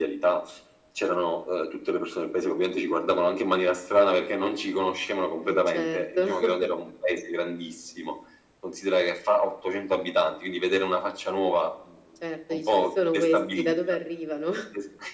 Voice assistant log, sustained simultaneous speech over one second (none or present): present